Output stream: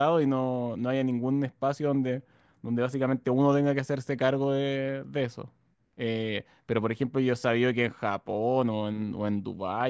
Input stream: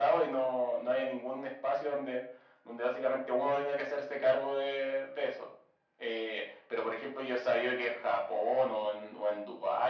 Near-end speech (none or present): none